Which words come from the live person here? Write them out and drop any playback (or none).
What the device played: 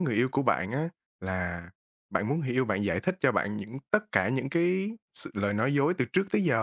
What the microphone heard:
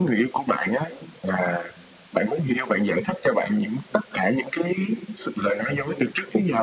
none